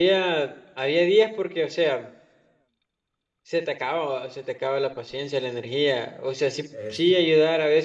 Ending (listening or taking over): listening